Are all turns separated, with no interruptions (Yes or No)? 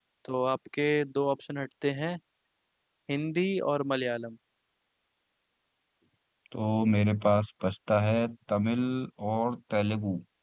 Yes